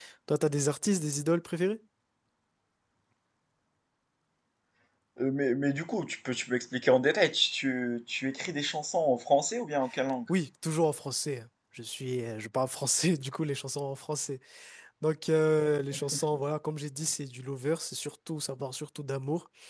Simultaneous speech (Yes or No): No